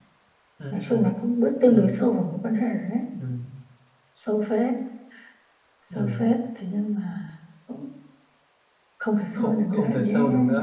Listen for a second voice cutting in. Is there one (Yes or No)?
Yes